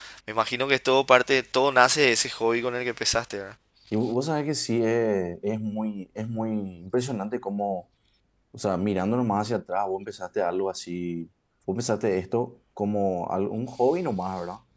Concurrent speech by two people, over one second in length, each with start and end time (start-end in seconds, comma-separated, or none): none